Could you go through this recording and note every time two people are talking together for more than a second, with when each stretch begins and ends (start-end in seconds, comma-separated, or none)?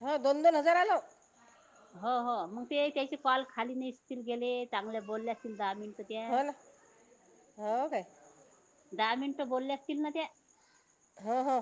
none